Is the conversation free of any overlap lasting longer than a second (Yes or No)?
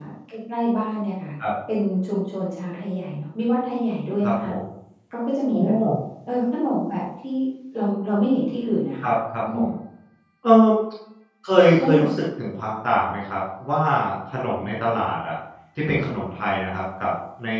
Yes